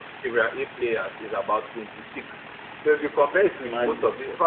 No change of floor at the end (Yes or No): Yes